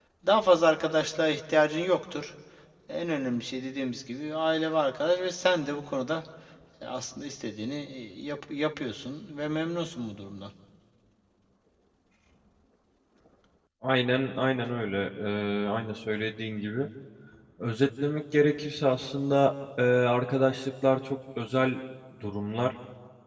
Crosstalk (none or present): none